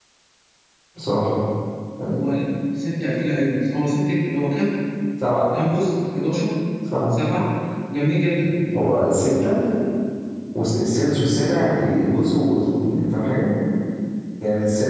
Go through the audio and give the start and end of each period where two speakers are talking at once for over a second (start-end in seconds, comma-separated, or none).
none